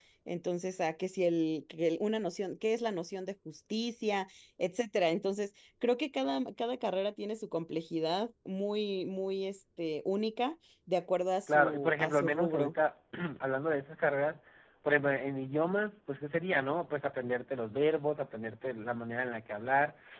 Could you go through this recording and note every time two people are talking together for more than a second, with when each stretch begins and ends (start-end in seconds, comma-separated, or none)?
11.5-12.7